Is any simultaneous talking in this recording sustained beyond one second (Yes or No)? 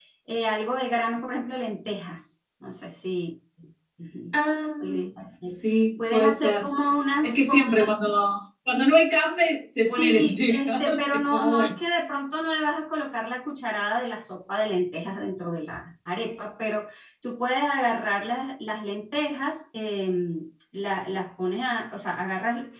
Yes